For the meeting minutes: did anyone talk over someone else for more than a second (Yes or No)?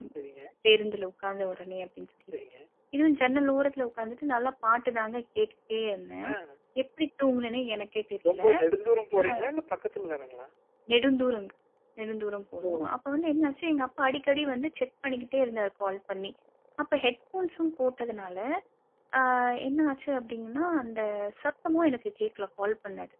No